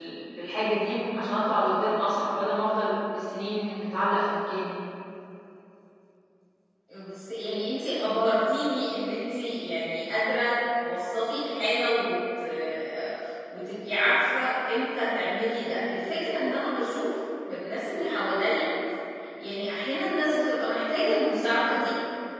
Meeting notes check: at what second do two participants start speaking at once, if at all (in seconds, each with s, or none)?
none